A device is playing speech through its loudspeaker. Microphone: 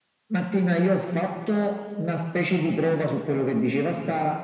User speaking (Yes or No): No